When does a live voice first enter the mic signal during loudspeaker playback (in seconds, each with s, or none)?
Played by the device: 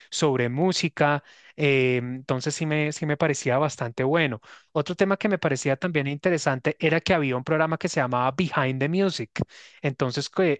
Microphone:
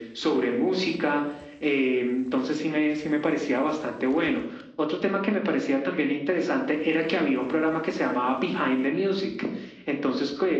none